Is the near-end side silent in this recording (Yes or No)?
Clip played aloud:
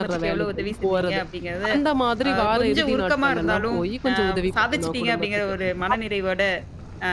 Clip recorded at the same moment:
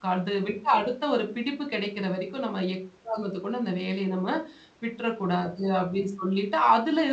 No